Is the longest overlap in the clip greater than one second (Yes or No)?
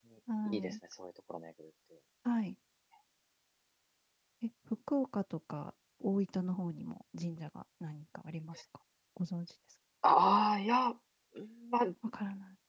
No